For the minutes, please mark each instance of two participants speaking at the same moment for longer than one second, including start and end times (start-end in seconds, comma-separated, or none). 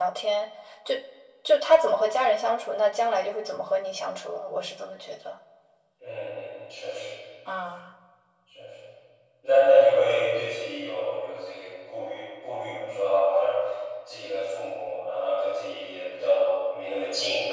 none